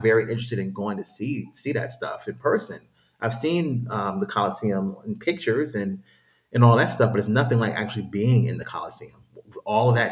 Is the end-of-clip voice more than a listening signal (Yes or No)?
No